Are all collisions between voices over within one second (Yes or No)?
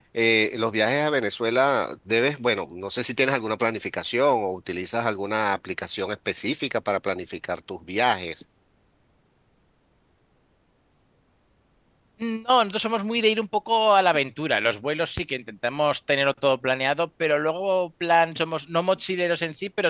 Yes